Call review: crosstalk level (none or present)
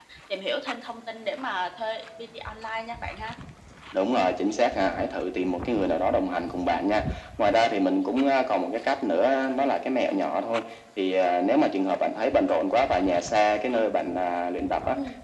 none